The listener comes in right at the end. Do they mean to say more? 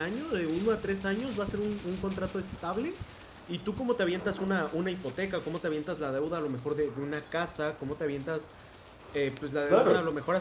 No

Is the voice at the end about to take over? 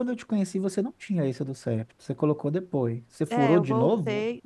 Yes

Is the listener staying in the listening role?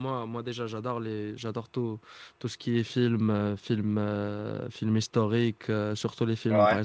Yes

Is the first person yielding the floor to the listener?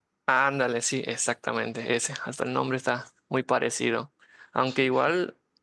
No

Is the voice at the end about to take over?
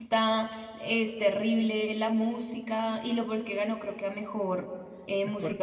Yes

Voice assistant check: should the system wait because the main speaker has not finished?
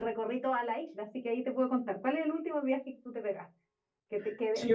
No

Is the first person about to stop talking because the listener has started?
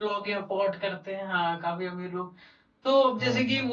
No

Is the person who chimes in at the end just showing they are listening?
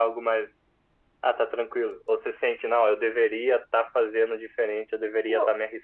Yes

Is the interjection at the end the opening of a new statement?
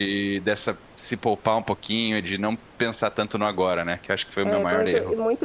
Yes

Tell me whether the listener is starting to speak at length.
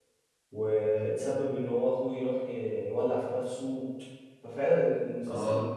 No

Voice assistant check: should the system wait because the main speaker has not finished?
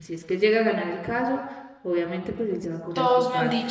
No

